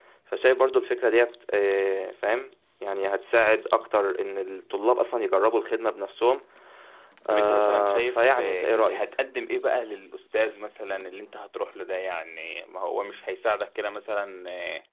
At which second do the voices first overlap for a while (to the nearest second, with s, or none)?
7 s